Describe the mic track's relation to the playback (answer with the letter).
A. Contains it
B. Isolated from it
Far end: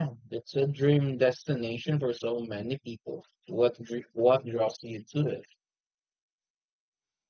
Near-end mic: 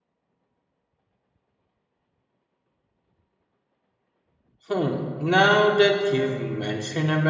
B